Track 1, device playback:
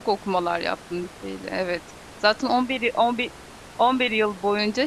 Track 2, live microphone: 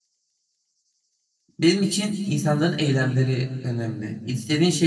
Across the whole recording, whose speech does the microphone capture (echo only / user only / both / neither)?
user only